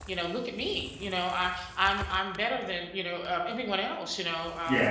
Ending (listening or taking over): listening